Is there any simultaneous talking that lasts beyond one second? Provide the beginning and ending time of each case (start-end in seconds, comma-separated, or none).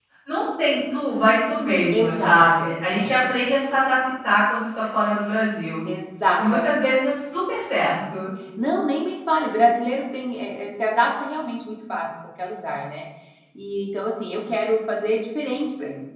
1.9-3.1